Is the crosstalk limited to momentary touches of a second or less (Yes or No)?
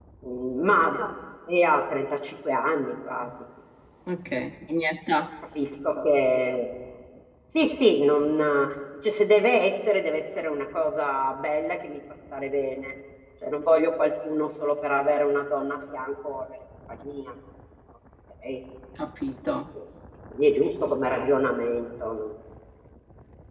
Yes